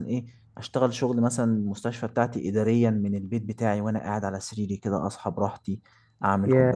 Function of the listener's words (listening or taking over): listening